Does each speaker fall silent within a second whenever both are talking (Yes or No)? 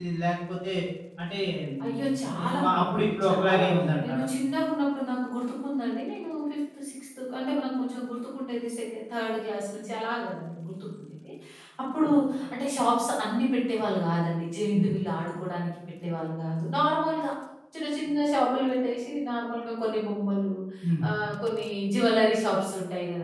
No